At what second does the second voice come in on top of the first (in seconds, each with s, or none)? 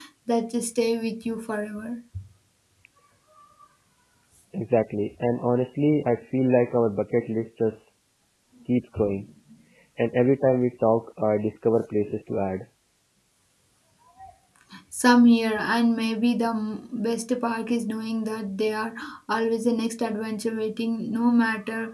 none